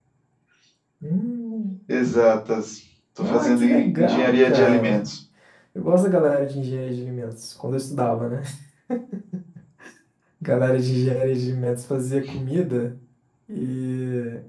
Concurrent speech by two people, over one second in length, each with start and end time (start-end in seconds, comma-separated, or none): 3.2-5.1